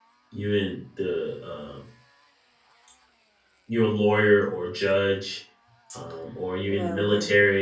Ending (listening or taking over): listening